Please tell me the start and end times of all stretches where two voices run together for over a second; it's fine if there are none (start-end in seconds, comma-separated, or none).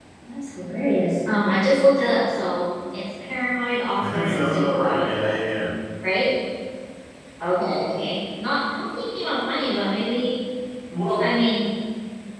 4.0-5.4